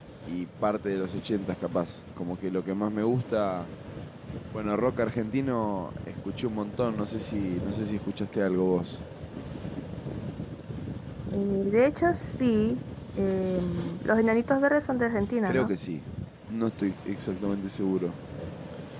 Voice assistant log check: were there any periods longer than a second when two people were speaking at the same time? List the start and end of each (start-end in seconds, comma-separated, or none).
none